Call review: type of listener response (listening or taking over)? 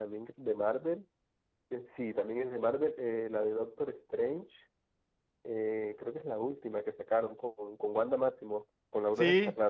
taking over